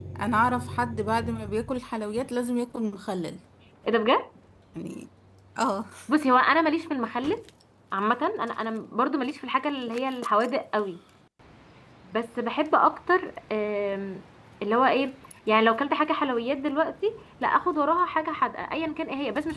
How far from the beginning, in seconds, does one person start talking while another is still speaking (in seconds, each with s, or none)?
none